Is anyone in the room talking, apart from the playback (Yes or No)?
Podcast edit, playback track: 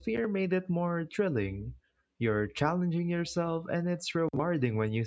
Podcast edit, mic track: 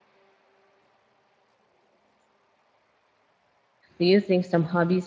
Yes